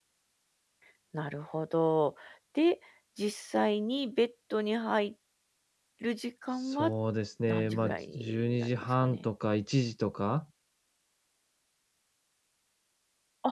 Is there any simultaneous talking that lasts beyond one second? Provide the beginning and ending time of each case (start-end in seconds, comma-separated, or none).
7.5-9.2